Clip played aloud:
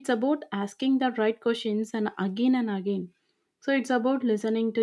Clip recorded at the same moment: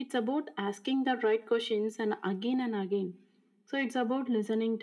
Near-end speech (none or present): none